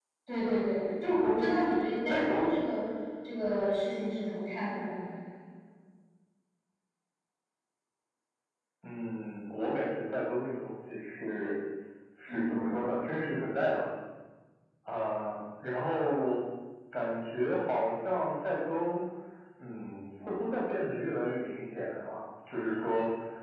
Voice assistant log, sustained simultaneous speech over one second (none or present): none